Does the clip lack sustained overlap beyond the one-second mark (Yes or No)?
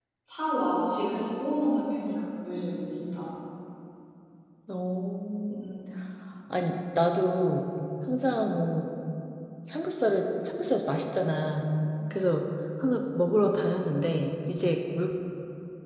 Yes